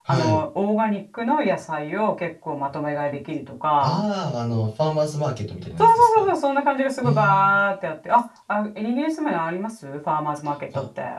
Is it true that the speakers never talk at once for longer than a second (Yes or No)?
Yes